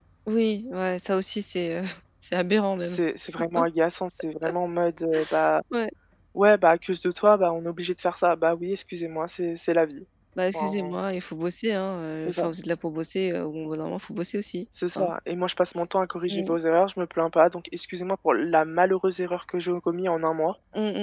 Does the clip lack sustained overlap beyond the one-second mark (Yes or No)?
Yes